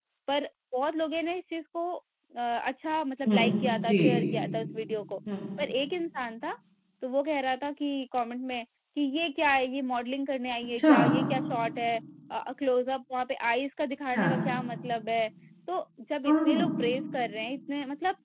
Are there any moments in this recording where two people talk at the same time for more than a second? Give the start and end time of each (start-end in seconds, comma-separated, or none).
none